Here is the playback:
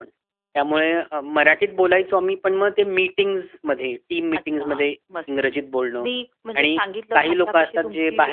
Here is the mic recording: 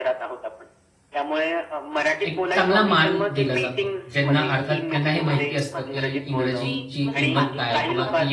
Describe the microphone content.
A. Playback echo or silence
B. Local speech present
B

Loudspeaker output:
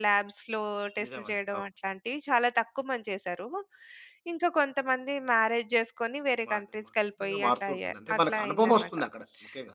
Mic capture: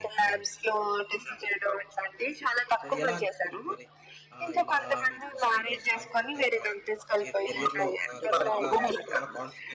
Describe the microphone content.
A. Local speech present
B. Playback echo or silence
A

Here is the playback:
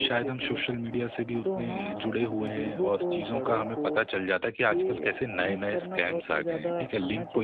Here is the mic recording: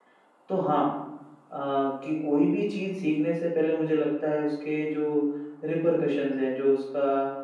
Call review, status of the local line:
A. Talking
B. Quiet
A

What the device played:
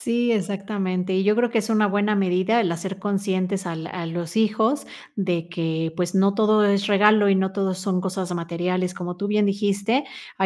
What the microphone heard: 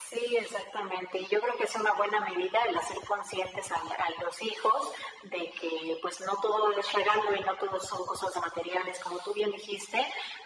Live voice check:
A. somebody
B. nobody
B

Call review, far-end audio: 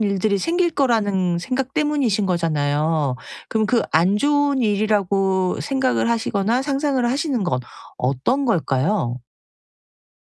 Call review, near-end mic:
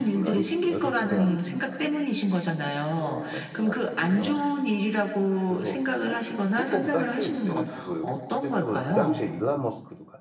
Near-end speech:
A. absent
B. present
B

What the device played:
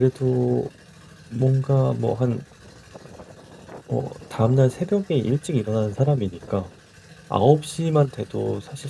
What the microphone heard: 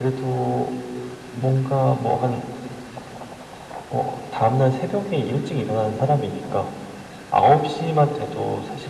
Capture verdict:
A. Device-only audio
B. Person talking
A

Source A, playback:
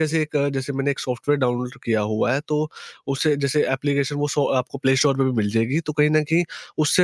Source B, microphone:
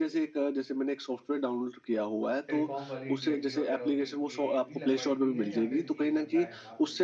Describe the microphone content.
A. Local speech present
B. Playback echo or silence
A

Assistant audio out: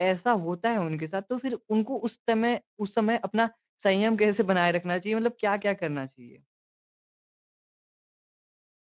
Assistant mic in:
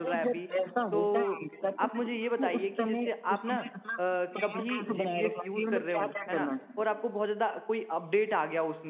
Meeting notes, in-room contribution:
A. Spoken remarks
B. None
A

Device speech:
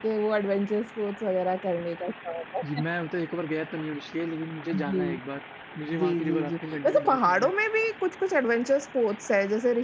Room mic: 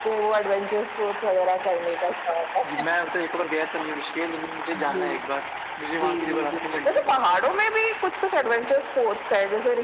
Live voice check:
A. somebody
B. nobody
B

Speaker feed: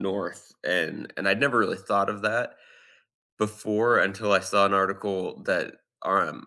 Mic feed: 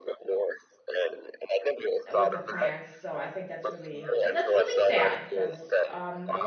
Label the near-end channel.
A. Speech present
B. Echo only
A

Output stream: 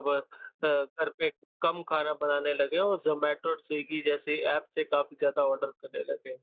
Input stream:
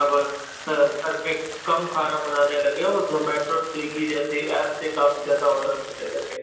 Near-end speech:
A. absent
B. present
A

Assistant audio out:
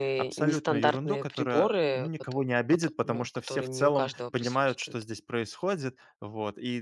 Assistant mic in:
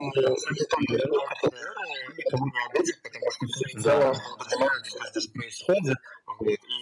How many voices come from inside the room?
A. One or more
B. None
A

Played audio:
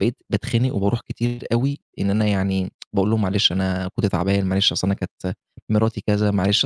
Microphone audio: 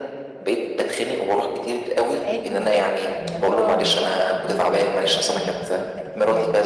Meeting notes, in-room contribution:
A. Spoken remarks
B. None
A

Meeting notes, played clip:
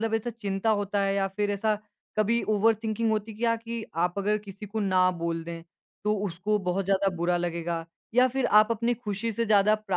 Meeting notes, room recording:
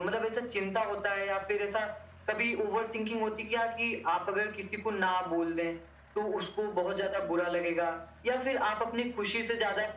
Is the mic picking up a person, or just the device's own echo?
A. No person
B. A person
A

